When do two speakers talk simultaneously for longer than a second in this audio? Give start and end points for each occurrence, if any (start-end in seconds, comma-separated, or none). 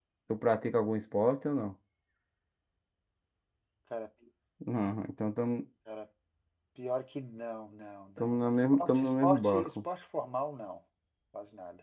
8.4-9.7